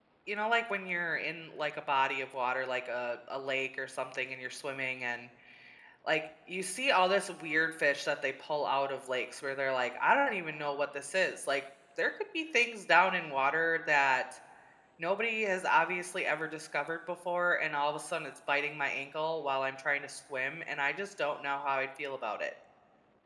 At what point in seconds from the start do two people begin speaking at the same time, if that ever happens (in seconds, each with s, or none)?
none